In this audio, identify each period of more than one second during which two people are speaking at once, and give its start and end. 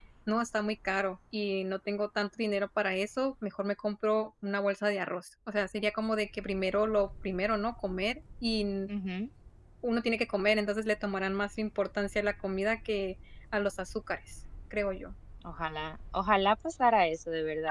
none

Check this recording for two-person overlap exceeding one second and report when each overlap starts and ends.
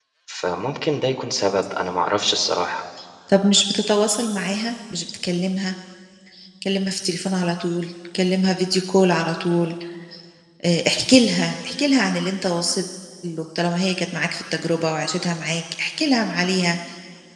none

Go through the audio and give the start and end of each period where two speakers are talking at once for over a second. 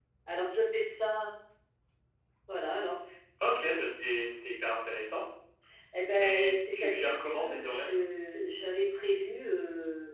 6.2-7.9

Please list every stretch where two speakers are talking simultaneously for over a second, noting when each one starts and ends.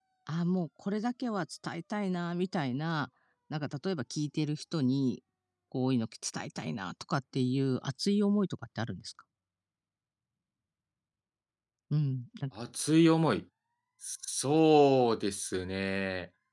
none

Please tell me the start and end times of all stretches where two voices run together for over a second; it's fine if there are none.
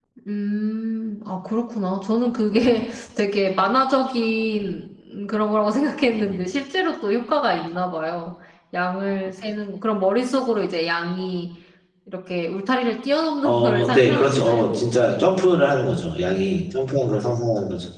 13.4-14.7

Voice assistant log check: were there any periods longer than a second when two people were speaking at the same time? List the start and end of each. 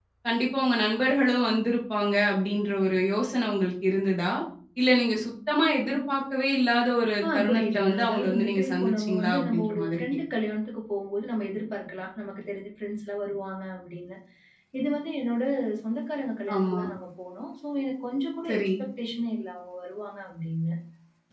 7.3-10.1

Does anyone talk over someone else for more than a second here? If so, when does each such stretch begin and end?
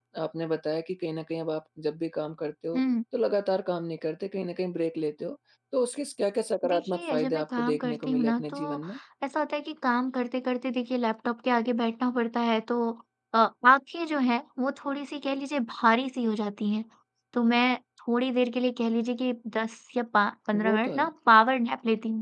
6.7-8.8

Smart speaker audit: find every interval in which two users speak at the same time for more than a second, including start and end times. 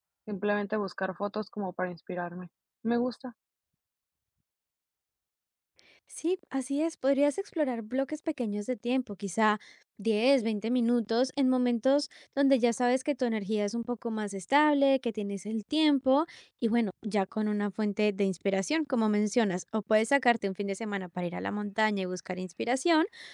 none

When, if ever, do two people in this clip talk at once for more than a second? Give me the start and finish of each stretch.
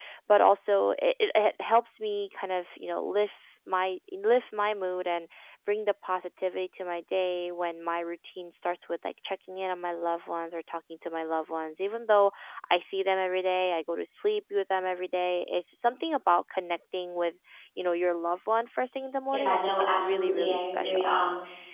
19.3-21.1

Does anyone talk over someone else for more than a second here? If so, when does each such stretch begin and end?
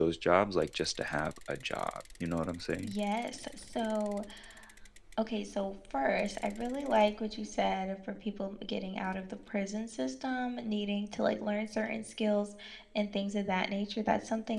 none

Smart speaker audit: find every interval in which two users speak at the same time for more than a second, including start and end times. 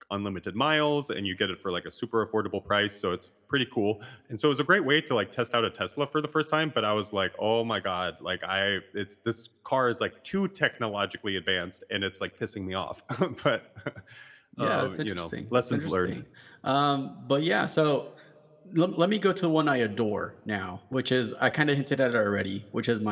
14.6-16.1

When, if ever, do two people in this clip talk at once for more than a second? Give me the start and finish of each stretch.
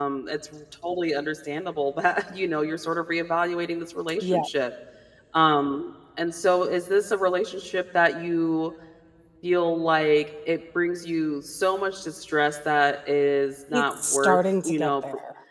13.7-14.9

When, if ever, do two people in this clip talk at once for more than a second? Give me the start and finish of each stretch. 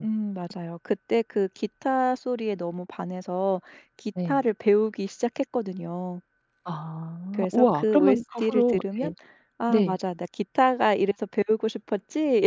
7.3-9.1

